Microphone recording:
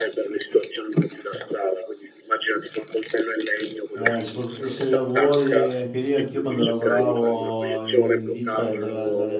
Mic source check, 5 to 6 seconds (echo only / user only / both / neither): both